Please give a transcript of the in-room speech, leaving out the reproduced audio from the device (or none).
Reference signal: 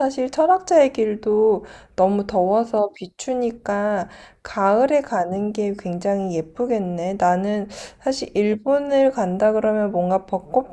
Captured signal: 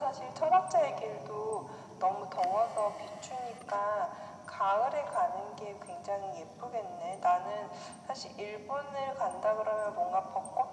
none